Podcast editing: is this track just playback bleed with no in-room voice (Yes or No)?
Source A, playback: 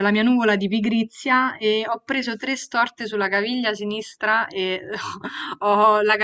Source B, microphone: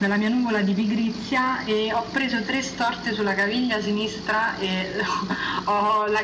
Yes